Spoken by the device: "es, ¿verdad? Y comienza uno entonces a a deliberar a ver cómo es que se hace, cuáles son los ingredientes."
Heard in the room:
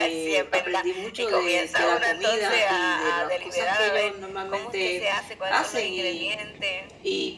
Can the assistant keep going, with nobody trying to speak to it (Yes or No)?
No